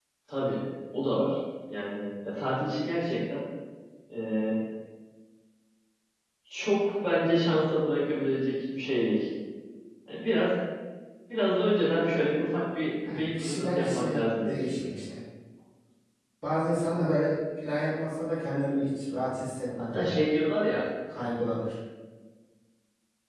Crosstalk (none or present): present